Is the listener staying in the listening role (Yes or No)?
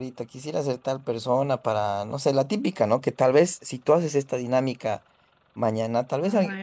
Yes